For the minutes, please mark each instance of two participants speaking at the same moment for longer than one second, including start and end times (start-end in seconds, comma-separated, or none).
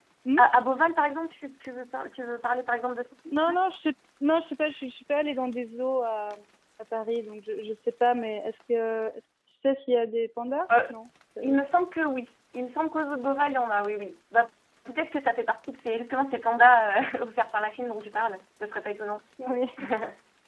none